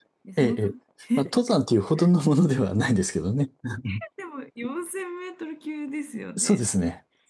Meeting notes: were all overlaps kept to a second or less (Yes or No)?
Yes